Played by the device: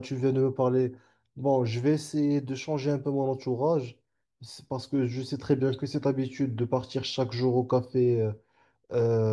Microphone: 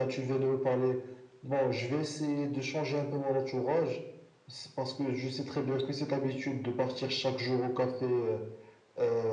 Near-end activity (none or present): none